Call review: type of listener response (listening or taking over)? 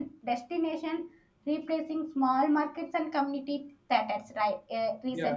listening